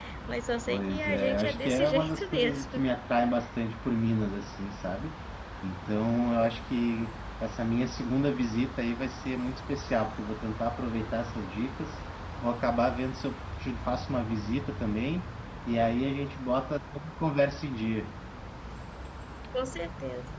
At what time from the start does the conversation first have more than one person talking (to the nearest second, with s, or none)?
1 s